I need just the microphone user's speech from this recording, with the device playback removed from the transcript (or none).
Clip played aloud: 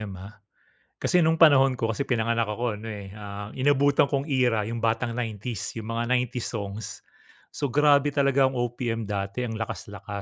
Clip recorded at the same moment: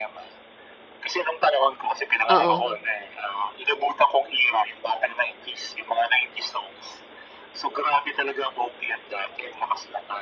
Oo.